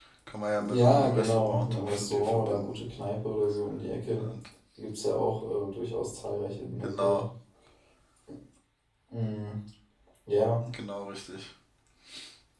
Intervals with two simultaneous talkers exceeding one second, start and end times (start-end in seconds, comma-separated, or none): 0.7-2.8